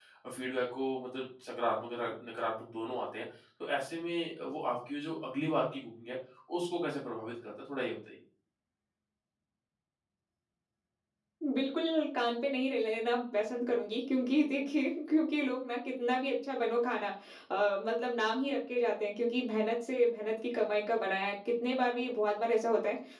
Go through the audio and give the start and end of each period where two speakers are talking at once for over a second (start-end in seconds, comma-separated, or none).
none